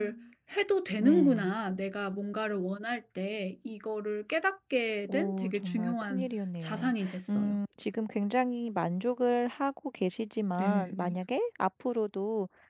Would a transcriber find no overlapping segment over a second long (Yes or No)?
No